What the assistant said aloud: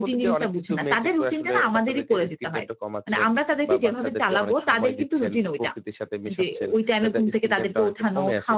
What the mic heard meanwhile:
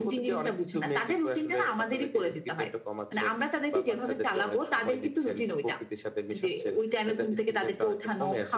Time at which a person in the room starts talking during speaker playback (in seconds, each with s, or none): none